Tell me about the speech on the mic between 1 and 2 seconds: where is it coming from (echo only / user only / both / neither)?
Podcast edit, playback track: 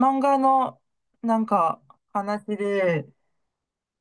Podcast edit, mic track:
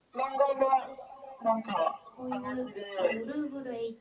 echo only